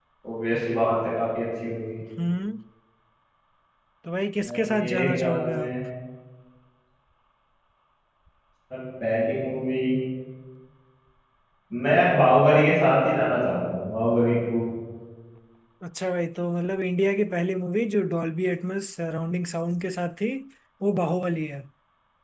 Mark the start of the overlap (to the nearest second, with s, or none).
4 s